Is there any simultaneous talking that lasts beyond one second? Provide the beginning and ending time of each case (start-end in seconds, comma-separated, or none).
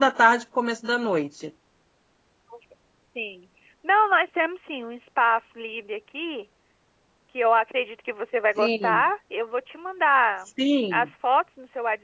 none